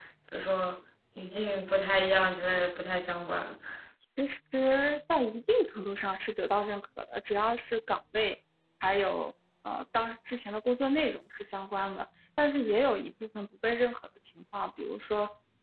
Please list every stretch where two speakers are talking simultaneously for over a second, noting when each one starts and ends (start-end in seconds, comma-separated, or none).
none